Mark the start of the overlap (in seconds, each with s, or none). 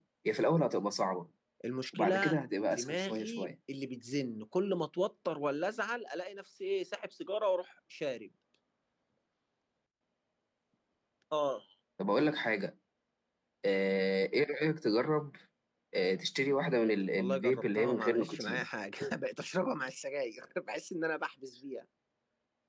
1.9 s